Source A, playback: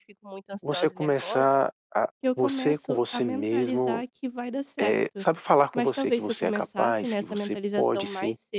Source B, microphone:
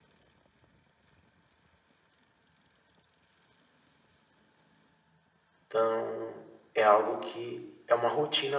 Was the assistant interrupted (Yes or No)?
Yes